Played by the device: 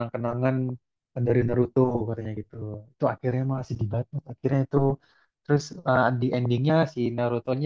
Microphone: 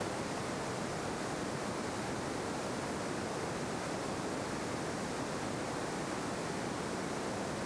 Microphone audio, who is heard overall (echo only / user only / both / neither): neither